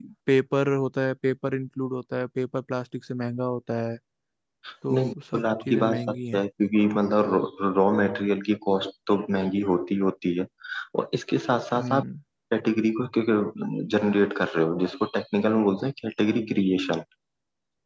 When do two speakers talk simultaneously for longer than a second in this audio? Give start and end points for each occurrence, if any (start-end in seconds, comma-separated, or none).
4.9-6.4